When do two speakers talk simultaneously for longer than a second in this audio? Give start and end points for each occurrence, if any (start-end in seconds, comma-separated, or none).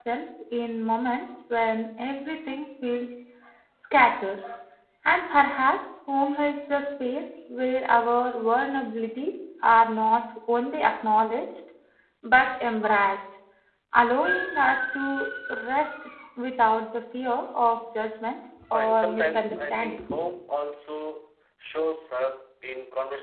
18.7-20.0